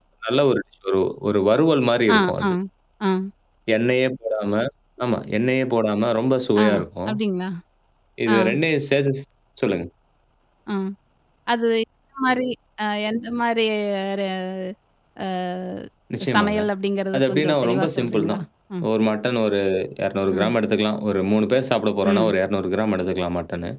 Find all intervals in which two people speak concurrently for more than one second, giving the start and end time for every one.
17.1-18.4

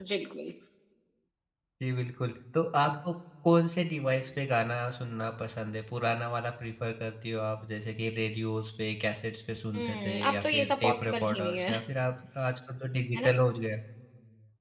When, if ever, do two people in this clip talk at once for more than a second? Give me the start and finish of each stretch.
9.8-11.7

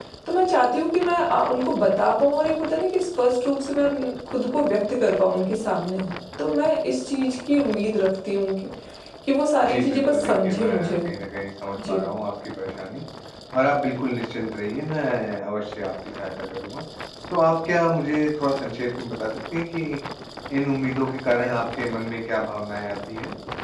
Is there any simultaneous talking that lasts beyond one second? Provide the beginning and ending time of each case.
9.7-11.1

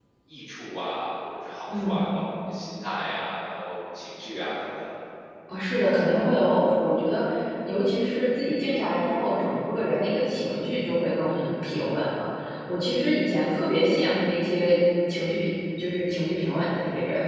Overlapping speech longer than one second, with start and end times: none

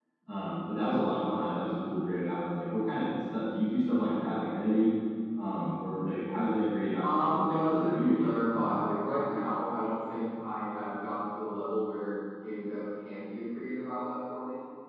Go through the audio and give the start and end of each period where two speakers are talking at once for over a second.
7.0-8.7

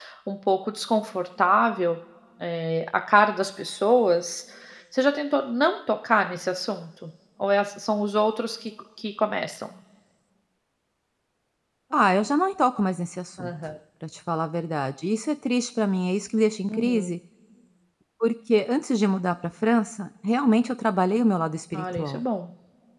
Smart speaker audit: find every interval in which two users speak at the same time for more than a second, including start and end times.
none

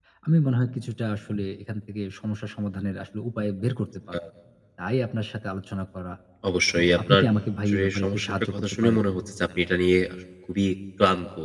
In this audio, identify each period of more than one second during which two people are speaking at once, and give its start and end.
7.7-9.0

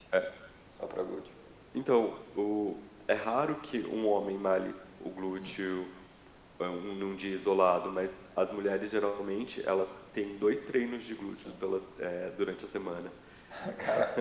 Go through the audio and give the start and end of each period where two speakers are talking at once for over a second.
none

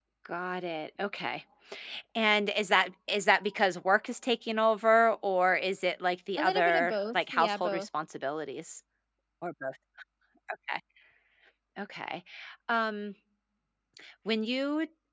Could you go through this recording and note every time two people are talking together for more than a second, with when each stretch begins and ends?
6.4-7.9

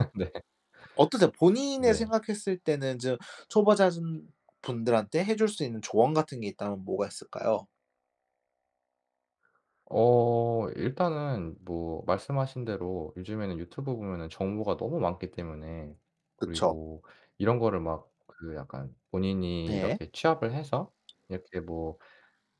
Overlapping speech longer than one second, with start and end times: none

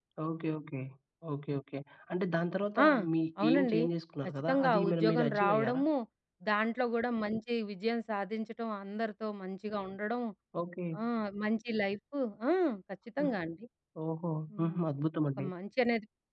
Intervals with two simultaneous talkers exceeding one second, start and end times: 4.5-5.8

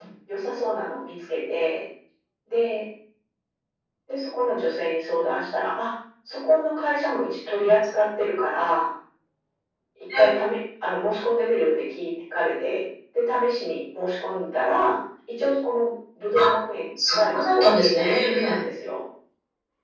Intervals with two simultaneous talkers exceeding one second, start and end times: 17.1-18.6

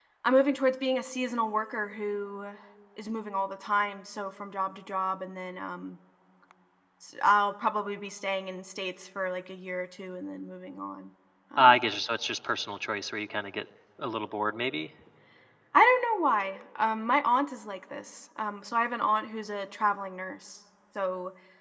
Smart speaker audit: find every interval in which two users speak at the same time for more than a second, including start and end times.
none

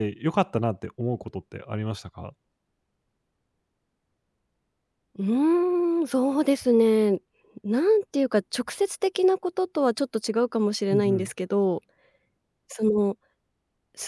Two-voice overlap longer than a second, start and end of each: none

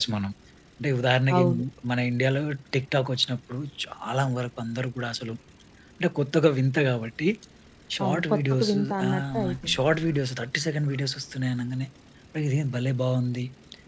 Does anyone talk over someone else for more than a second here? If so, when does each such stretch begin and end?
8.0-9.8

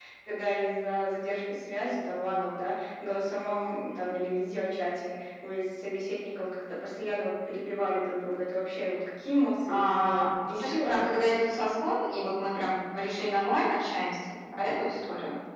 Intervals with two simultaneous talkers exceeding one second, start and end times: 9.7-11.1

